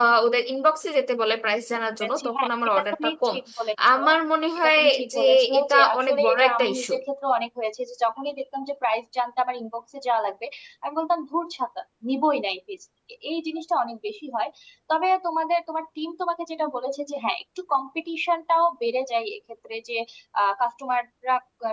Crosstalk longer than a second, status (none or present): present